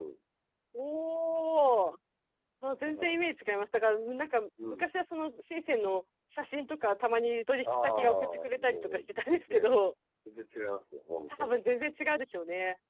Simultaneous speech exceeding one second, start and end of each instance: 7.6-9.0

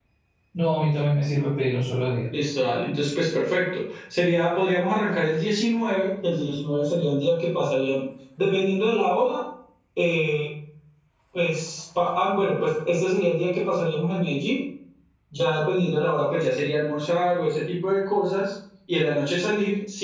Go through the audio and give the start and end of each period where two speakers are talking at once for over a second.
none

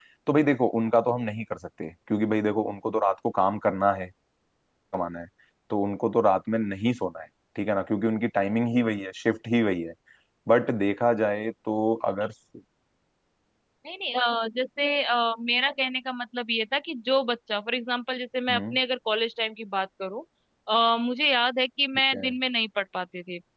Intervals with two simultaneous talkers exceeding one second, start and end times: none

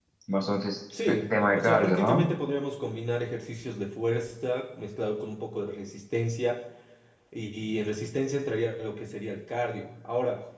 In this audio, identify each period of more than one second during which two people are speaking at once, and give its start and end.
1.1-2.3

